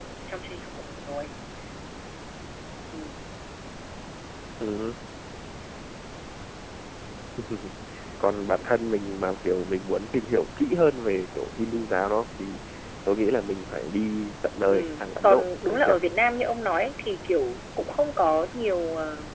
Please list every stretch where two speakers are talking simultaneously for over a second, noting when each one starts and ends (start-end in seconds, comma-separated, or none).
14.7-15.9